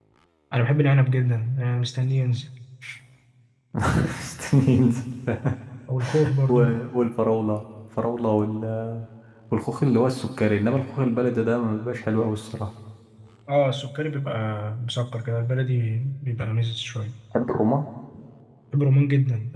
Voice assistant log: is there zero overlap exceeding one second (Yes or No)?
Yes